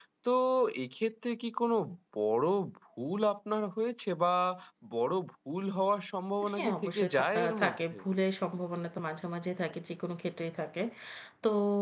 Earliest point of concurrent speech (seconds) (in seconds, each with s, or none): 6.4 s